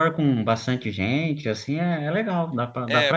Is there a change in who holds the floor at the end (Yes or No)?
Yes